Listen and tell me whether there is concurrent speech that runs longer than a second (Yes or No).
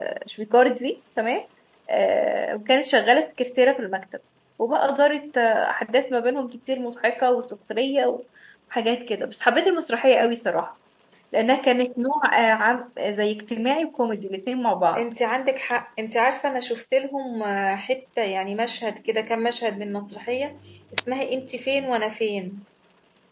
No